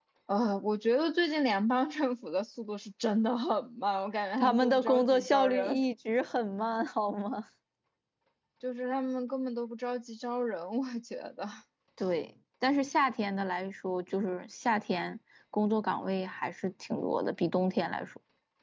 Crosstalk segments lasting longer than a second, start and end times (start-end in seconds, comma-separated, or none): 4.4-5.8